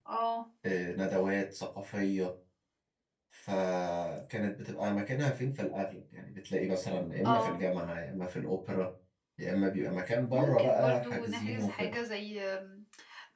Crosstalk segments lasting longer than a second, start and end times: 10.3-11.9

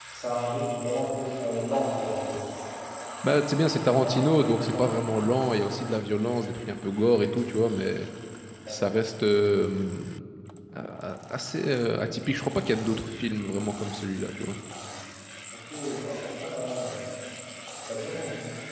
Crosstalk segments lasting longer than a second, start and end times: 3.6-4.9

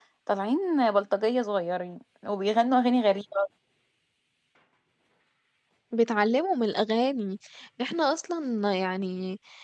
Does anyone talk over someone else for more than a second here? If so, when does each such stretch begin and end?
none

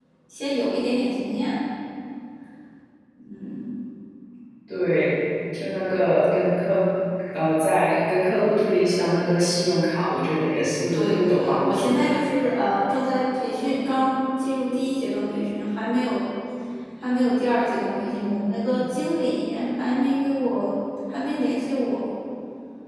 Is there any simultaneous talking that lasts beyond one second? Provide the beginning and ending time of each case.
10.9-12.2

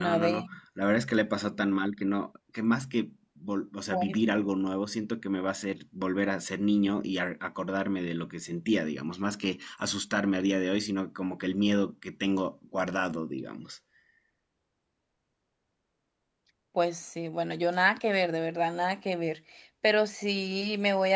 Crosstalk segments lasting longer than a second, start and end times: none

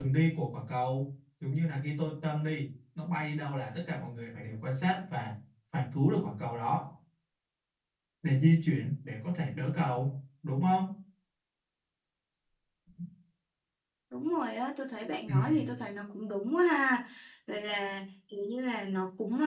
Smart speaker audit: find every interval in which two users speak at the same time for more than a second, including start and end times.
none

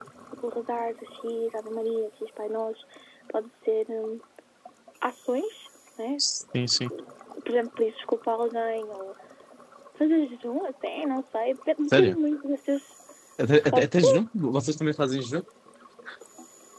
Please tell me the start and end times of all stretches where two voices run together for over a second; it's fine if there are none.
none

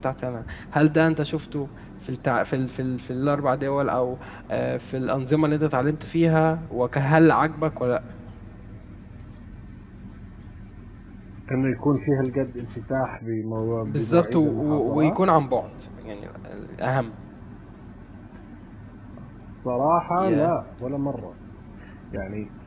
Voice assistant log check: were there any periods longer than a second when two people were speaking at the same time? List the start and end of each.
13.8-15.2

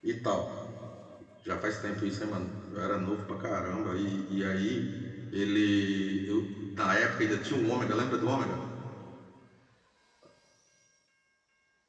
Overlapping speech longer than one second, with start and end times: none

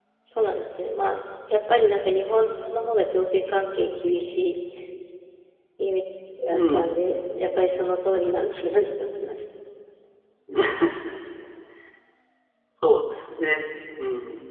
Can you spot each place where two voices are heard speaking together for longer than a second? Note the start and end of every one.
none

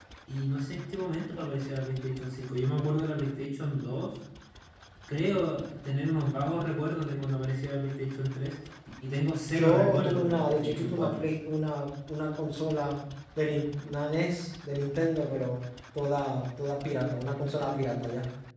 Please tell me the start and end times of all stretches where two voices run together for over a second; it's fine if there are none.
9.5-11.2

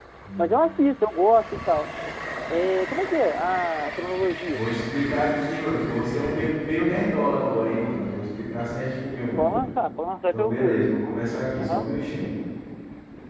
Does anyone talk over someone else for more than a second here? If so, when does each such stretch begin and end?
none

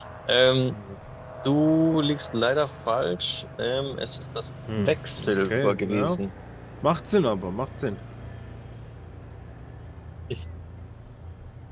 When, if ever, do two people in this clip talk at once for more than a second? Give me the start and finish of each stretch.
4.8-6.2

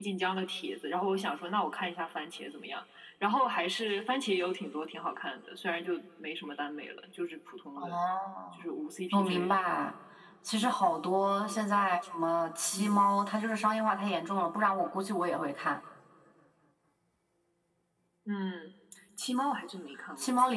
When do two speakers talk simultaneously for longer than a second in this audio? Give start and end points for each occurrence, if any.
none

